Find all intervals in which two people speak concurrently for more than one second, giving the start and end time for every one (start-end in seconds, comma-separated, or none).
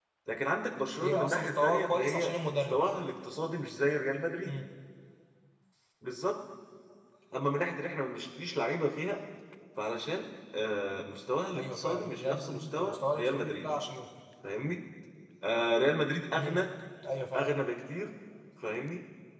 1.0-2.8, 11.6-13.7